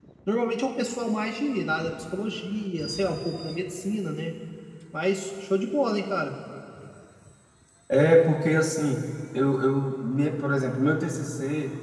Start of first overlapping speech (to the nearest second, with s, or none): none